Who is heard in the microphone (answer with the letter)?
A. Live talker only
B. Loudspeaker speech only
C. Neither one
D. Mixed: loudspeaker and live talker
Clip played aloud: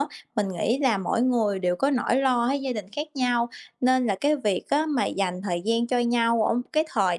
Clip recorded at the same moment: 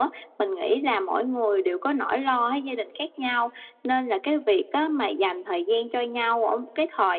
B